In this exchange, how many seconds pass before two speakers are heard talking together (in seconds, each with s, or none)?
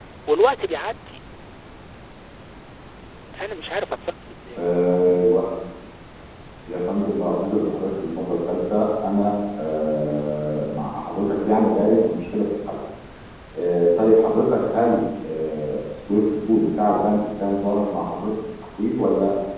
none